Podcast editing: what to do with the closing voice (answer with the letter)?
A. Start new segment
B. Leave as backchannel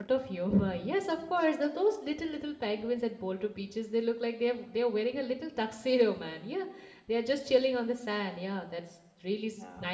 A